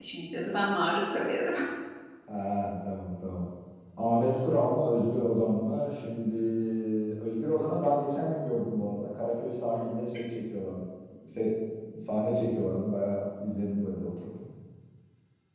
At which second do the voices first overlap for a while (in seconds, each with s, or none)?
none